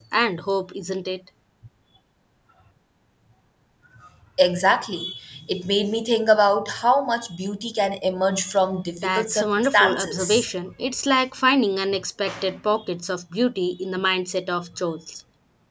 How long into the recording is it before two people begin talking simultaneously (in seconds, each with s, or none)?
9.0 s